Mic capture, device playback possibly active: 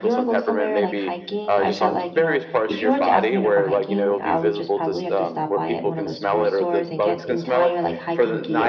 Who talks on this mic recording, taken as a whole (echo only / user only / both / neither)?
both